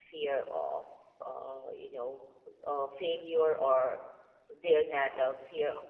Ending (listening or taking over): listening